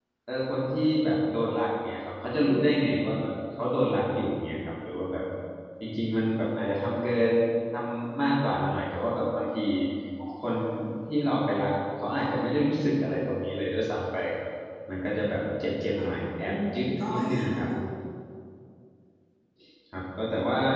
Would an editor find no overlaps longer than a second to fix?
No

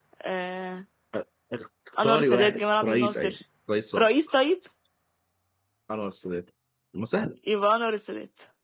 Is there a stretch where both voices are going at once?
Yes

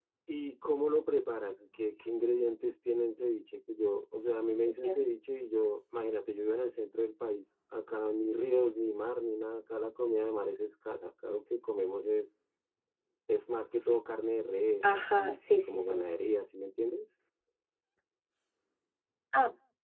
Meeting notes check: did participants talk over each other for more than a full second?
Yes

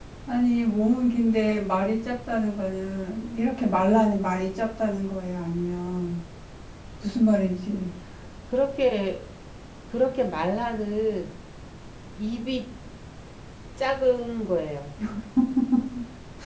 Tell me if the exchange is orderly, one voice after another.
Yes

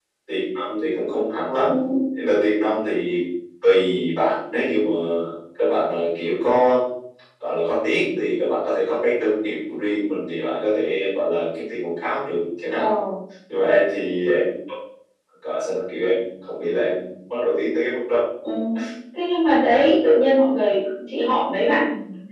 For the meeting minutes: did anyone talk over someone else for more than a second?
No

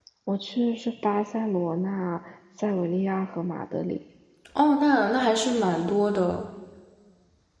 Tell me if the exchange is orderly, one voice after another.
Yes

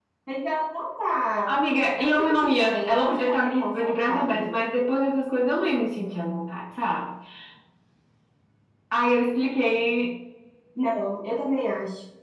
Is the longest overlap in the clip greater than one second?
Yes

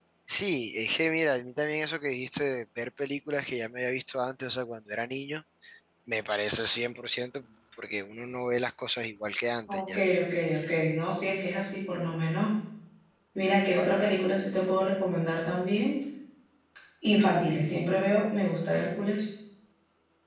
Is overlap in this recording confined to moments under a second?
Yes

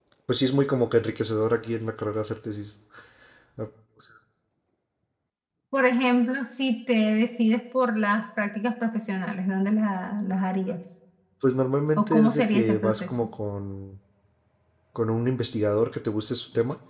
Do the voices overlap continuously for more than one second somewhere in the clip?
Yes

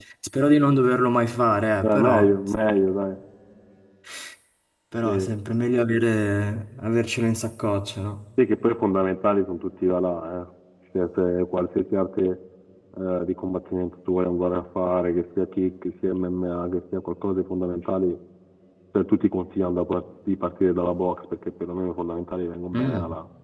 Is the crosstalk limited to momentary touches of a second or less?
Yes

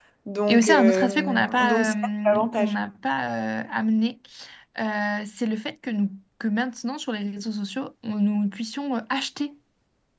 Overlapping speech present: Yes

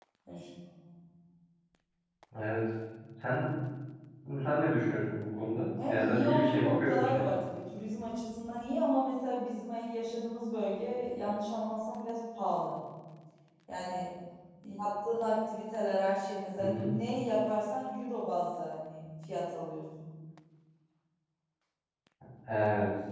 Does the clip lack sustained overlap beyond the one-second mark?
No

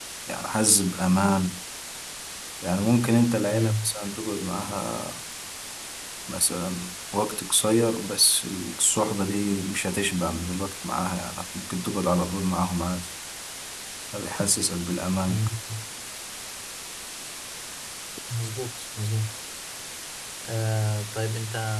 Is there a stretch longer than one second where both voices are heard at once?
No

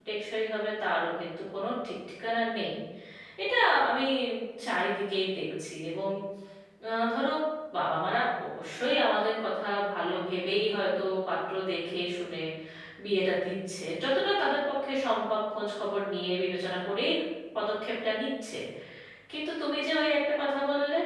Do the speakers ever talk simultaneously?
No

